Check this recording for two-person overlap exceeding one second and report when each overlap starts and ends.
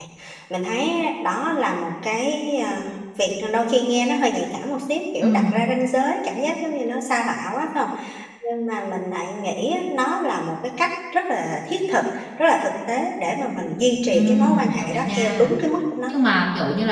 14.1-15.5

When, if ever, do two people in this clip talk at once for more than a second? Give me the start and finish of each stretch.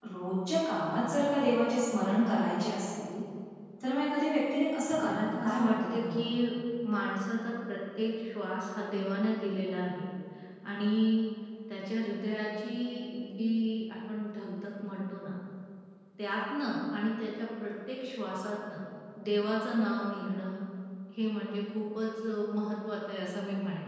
5.0-6.2

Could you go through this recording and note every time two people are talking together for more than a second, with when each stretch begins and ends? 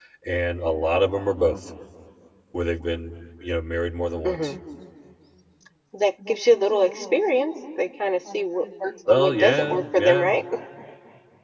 9.1-10.3

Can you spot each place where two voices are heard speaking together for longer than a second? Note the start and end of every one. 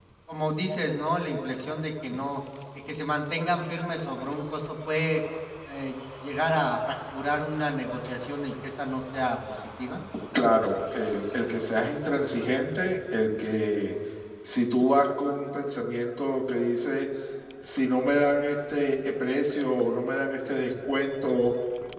none

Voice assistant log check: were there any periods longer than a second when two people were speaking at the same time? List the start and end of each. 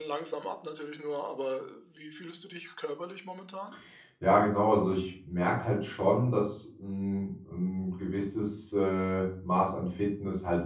none

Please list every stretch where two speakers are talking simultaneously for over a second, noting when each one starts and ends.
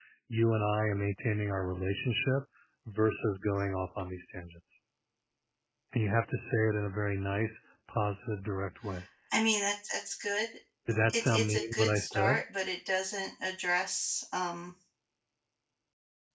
11.1-12.4

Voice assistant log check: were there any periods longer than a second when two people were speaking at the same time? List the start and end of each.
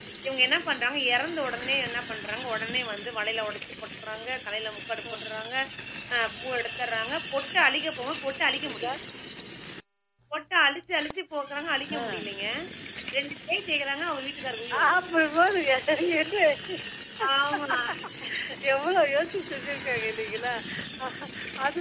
none

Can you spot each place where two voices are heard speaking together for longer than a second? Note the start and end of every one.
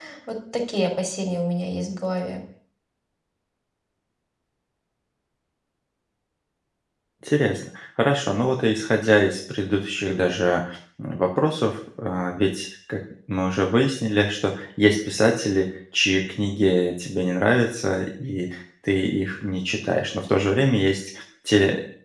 none

